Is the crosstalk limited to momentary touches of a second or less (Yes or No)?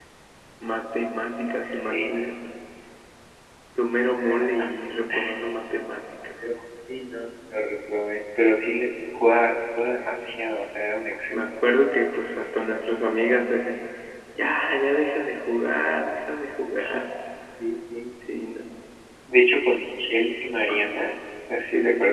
Yes